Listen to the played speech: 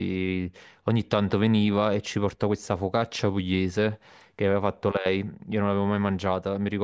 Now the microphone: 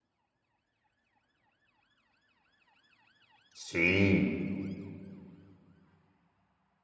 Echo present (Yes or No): No